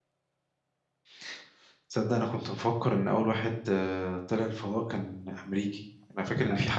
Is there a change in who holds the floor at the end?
No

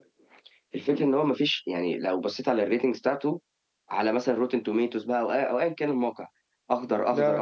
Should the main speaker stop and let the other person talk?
No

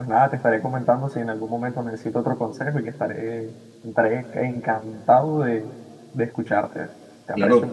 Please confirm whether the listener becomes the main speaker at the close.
Yes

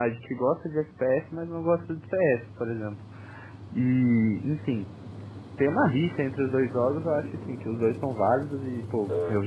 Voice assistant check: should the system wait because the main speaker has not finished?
Yes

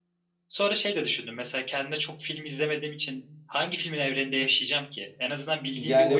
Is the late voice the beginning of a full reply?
Yes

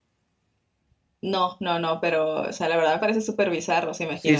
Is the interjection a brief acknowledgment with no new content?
No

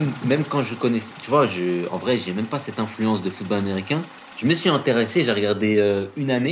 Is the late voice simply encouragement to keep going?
Yes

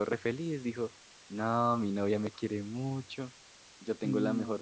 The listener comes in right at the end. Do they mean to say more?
No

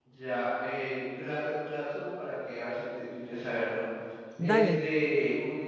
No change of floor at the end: Yes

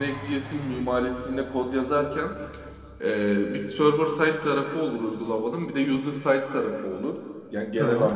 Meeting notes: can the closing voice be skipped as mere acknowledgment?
Yes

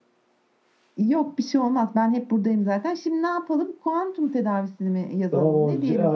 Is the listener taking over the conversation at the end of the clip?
Yes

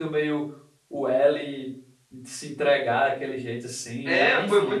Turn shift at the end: Yes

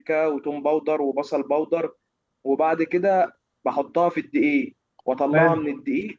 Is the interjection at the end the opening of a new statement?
No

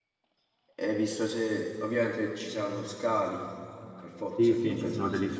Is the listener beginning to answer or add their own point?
Yes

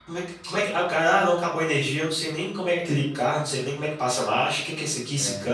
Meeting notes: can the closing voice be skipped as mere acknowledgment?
Yes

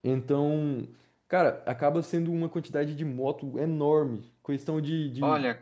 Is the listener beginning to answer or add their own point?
No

